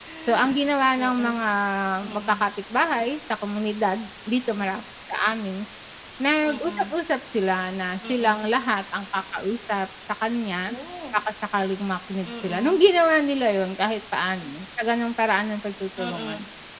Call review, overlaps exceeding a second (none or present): none